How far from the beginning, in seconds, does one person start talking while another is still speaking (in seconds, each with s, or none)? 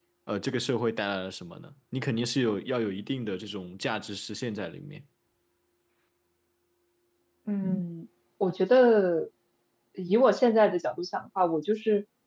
none